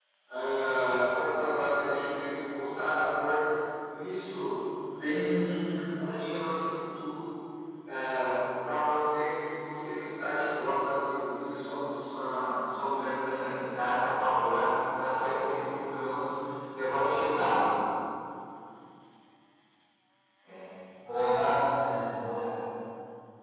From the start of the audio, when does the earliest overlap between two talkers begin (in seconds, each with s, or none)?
none